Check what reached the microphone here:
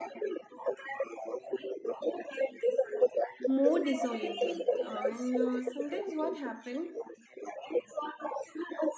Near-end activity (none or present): present